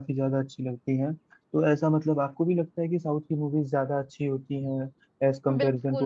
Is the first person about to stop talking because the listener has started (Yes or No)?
Yes